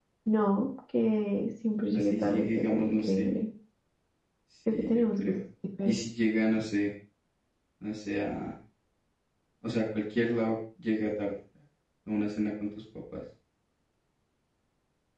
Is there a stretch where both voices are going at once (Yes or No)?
Yes